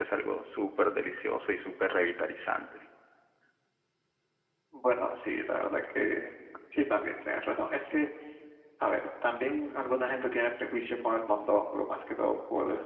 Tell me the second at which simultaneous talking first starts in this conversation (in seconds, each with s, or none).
none